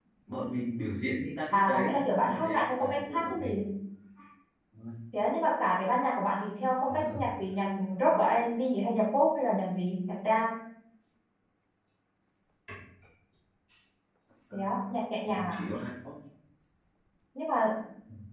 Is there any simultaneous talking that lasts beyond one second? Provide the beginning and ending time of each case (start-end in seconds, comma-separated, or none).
1.5-3.6